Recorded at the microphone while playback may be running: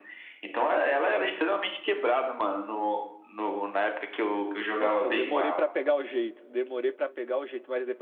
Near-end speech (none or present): present